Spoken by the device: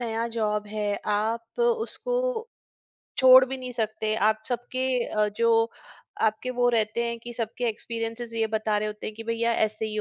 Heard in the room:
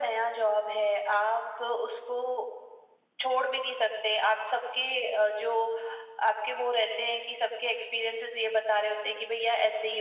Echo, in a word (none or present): present